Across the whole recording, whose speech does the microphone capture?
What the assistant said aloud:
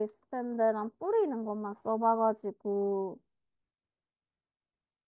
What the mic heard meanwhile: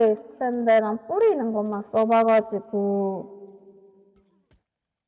echo only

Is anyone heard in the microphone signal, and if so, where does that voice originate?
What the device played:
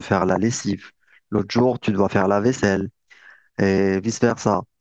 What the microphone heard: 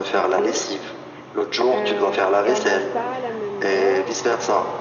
both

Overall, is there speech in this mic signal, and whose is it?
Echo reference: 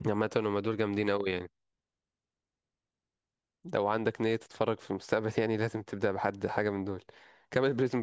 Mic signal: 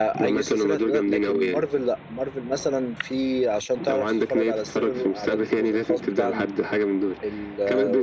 both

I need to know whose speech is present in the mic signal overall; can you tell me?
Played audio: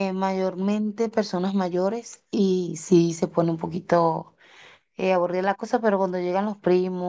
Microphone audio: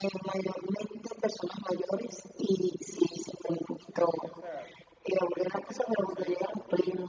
both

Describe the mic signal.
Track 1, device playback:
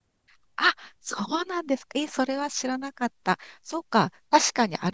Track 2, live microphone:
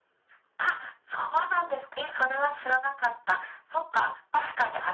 both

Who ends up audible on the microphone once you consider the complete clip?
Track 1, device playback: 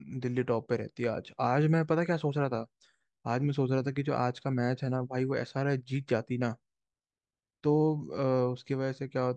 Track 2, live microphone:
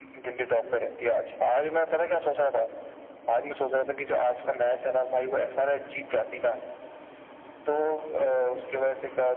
echo only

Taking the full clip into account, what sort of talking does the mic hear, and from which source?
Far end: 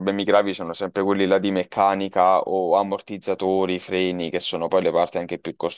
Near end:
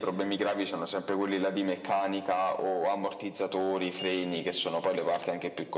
echo only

